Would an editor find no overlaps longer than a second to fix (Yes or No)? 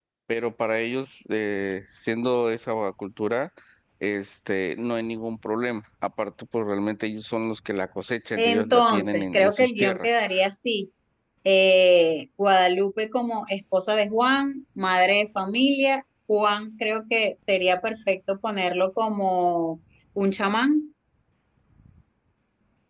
No